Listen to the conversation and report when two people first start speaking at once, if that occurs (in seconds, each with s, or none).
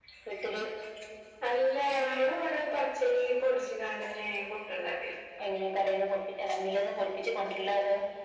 none